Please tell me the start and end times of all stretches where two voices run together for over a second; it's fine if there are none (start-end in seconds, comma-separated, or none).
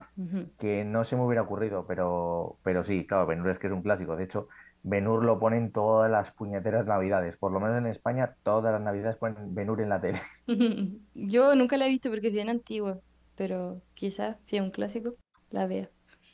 none